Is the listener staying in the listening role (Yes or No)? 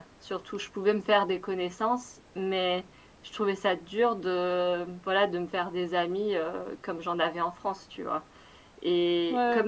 Yes